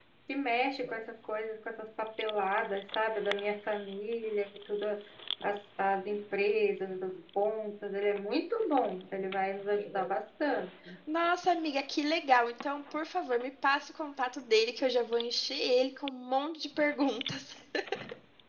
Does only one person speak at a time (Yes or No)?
Yes